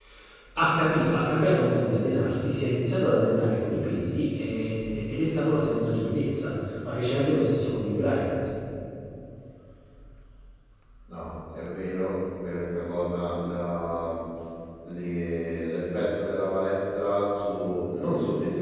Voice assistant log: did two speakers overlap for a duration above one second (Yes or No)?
No